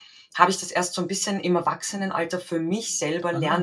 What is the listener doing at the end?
taking over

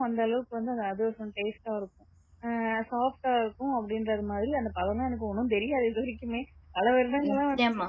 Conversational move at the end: listening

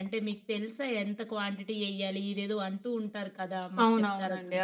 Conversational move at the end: taking over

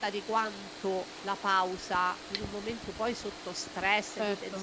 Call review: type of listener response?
listening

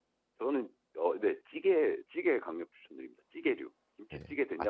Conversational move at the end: taking over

